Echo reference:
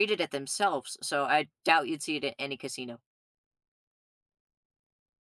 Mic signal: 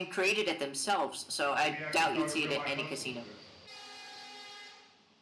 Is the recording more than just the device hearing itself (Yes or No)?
Yes